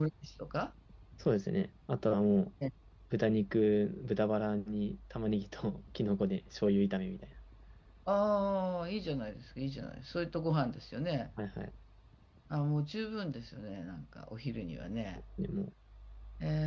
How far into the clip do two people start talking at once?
none

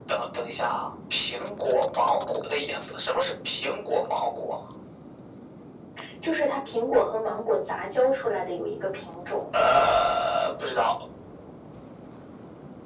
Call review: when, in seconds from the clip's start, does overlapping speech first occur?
none

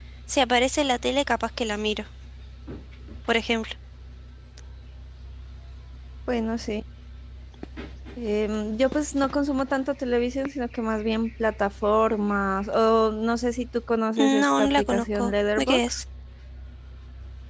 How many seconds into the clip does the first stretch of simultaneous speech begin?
14.2 s

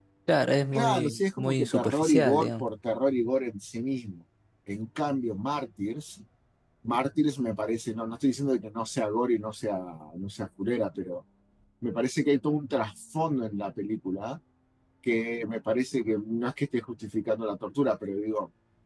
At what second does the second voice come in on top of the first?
0.7 s

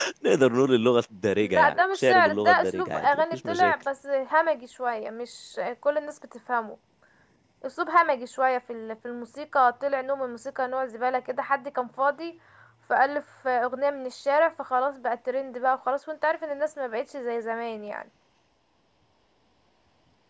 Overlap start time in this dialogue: 1.4 s

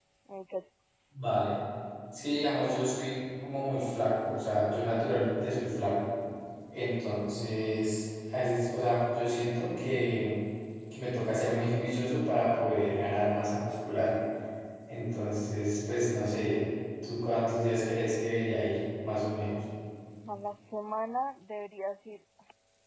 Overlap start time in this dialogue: none

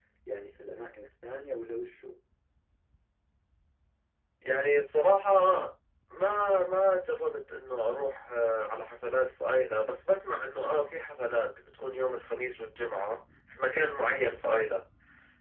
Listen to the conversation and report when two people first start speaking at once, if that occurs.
none

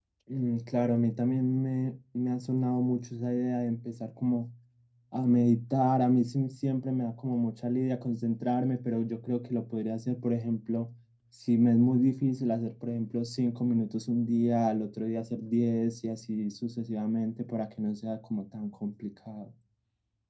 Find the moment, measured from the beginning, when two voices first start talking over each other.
none

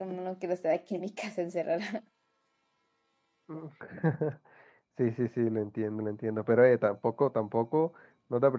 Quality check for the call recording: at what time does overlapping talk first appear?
none

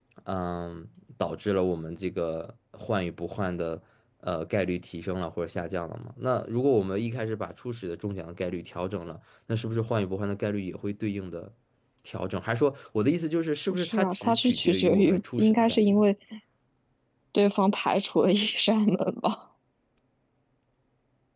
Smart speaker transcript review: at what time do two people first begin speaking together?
13.7 s

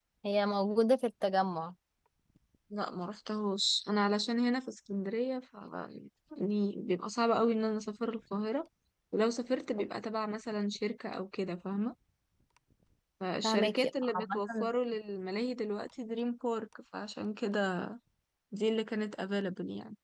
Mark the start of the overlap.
13.4 s

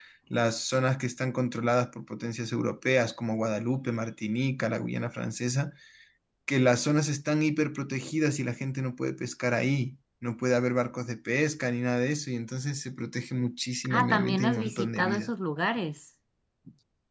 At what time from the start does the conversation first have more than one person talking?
13.8 s

